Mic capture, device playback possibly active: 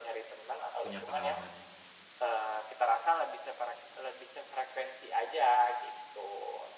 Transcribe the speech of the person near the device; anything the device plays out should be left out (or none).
punya pengalamannya.